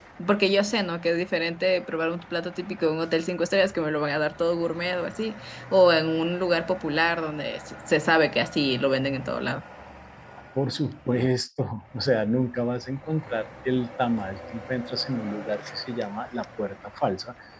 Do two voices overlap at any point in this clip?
No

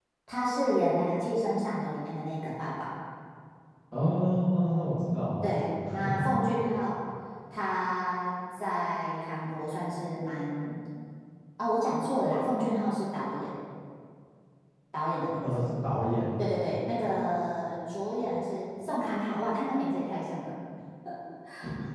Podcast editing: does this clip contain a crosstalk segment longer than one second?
No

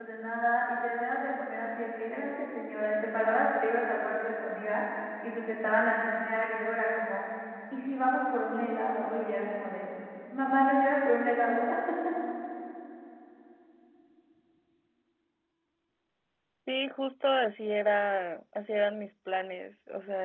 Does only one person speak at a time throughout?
Yes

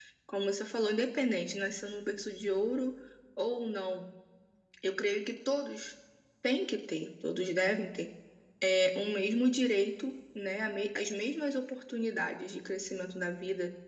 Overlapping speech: No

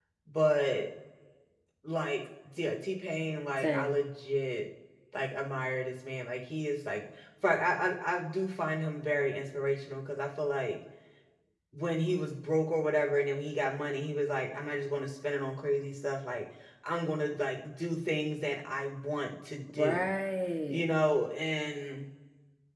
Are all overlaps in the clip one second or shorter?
Yes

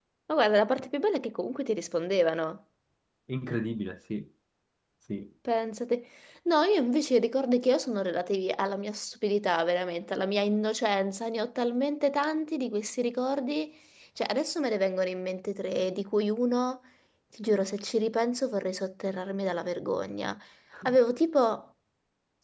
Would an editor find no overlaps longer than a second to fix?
Yes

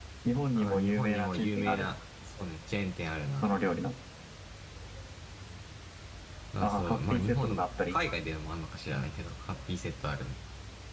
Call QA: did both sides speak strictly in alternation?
No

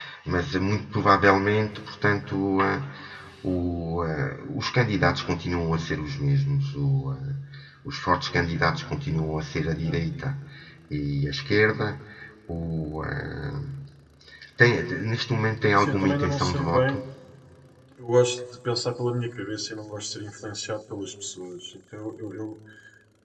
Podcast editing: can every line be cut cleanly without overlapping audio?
No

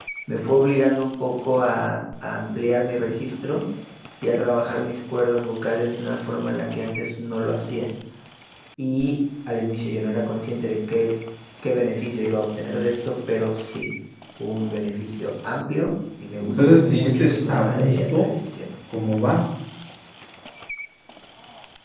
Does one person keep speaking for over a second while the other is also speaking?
Yes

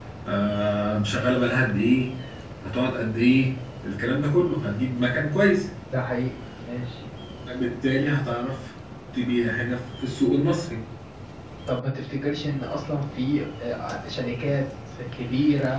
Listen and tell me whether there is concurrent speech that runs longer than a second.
No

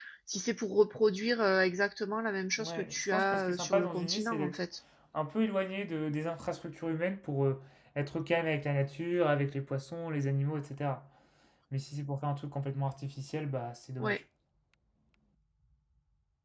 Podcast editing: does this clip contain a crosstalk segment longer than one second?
Yes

